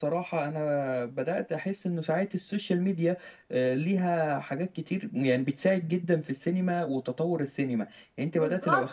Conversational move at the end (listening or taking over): listening